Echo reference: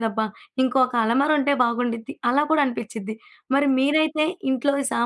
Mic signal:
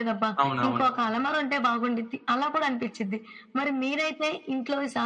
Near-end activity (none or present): present